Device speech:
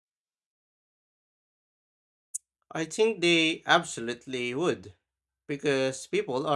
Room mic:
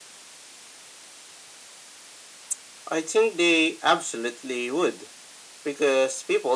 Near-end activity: none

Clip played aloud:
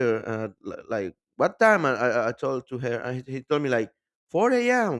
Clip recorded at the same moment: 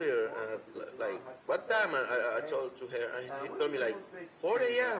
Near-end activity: present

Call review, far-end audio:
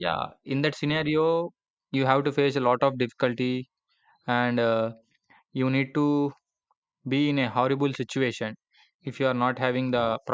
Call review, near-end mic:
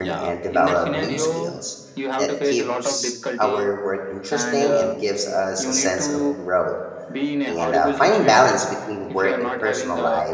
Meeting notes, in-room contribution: present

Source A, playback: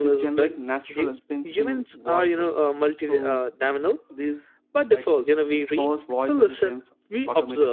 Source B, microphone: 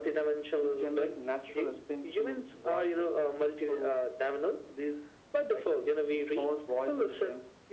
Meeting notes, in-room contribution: none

